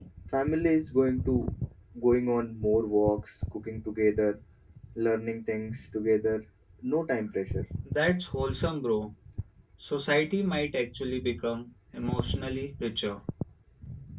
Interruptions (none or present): none